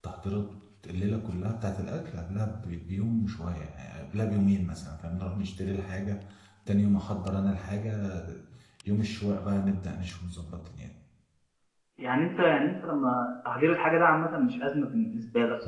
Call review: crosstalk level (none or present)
none